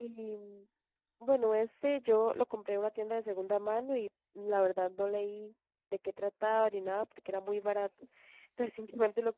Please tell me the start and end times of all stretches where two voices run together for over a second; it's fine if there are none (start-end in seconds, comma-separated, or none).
none